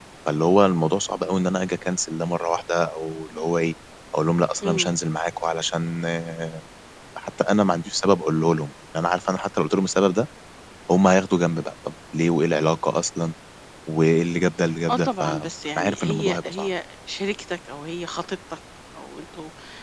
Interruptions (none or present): present